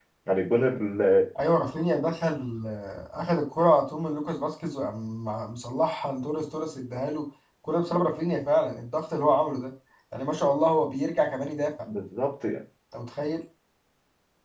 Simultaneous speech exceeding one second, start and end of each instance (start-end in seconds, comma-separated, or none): none